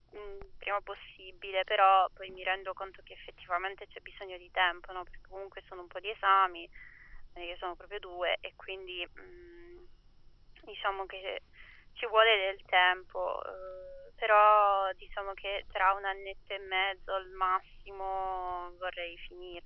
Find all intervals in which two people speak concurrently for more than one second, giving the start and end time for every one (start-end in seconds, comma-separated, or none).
none